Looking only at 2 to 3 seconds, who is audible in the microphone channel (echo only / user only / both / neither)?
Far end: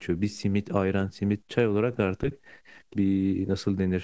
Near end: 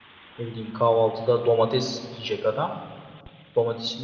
user only